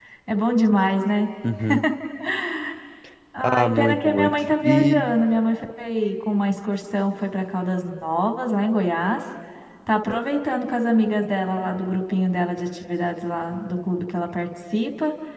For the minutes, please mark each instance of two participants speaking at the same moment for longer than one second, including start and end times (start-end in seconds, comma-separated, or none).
3.4-5.1